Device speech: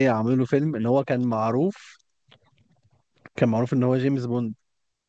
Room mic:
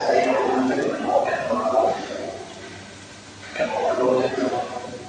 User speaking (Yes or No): No